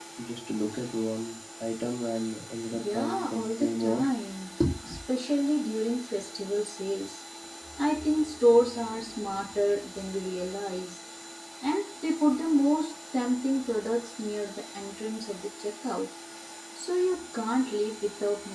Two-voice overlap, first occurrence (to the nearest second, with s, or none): 3 s